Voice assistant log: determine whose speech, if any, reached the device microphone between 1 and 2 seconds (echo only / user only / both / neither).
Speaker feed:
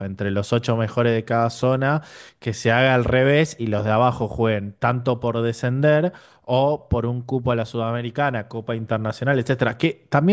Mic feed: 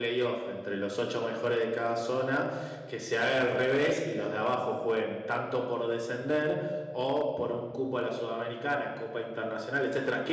echo only